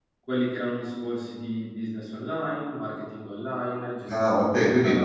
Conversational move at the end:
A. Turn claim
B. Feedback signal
A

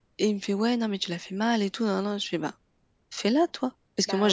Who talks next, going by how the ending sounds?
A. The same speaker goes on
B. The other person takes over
A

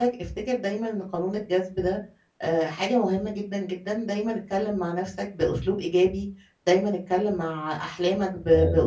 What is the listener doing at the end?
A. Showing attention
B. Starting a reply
A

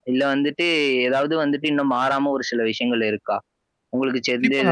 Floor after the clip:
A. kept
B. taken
B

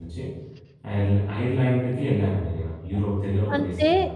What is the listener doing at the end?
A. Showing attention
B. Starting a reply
B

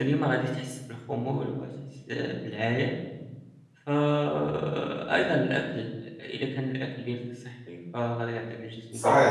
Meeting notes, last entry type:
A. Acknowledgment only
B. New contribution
A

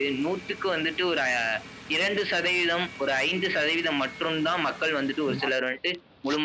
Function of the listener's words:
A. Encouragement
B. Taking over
A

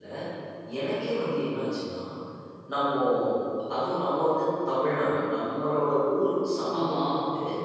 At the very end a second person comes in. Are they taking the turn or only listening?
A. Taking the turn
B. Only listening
B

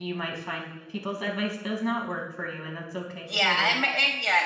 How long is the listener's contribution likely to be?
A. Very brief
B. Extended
B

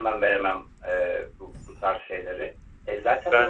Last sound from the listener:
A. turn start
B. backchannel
B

